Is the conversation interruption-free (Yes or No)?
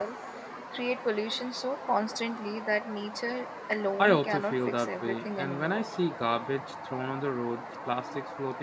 No